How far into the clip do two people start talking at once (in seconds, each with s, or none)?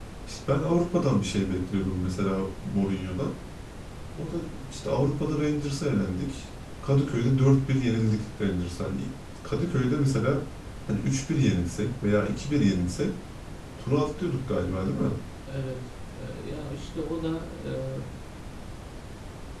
none